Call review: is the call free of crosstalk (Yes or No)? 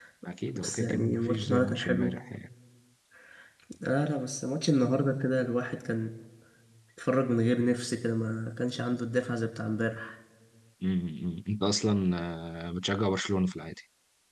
No